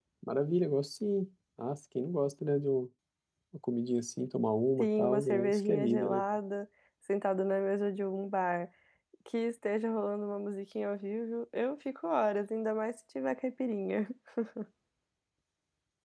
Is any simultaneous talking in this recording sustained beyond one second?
Yes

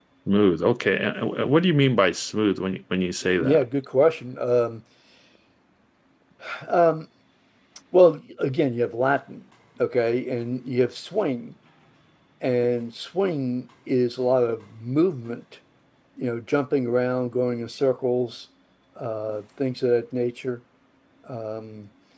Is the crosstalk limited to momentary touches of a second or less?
Yes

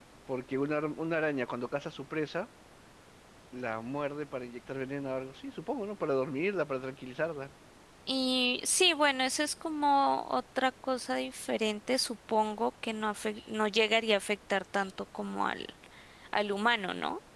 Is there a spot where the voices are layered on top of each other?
No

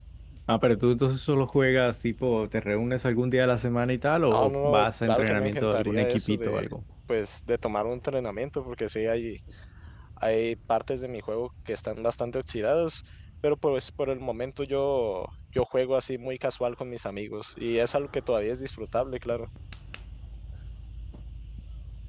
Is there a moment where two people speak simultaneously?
Yes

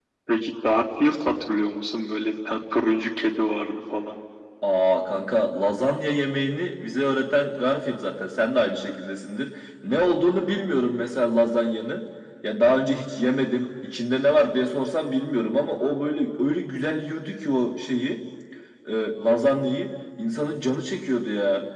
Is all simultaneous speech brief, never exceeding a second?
Yes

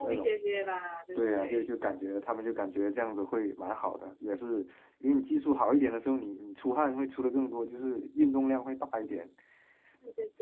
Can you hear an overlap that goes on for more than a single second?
No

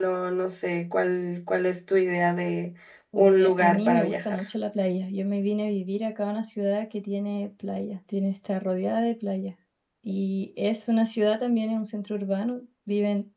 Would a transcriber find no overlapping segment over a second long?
No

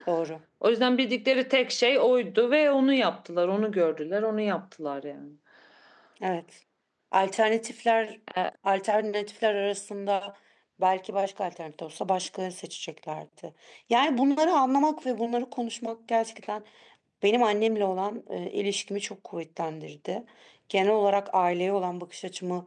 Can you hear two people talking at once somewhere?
No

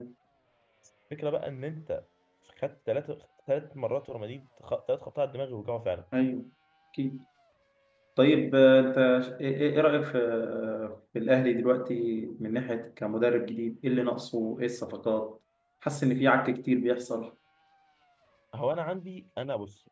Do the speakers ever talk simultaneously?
No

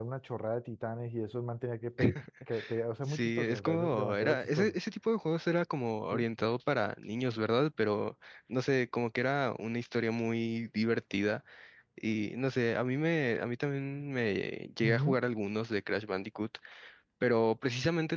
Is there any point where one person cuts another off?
Yes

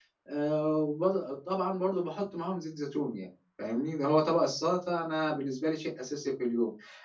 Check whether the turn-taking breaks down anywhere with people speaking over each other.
No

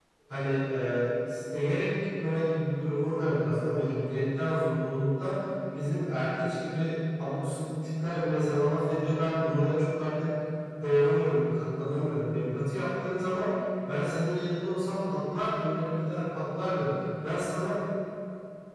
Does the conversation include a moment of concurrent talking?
No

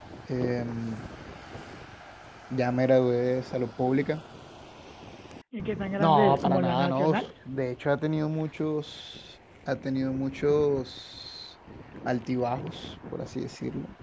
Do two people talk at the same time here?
Yes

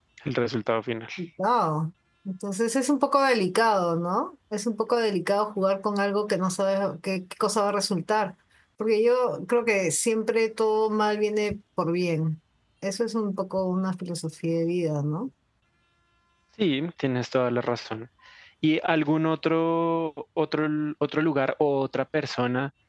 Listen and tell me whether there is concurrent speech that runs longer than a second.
No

